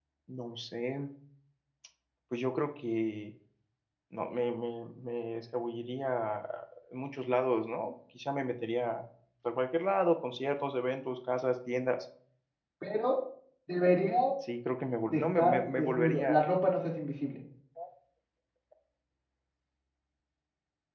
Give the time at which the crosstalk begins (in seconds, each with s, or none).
15.1 s